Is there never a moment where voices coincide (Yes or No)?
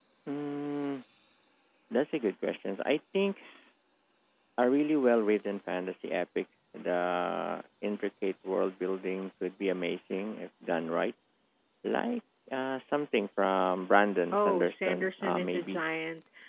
No